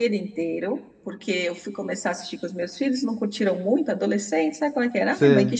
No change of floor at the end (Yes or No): Yes